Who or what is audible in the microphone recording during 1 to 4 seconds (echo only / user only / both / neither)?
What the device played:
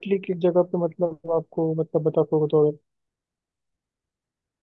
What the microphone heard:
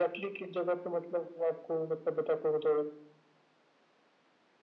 echo only